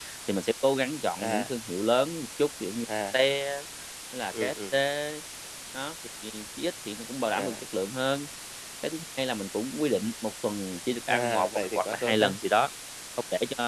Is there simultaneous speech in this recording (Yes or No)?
Yes